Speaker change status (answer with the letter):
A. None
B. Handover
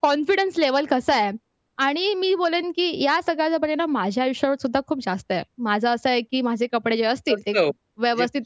B